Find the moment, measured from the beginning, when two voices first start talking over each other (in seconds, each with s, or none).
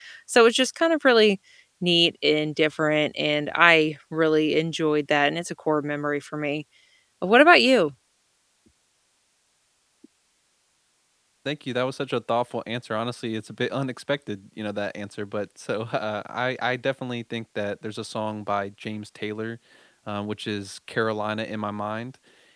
none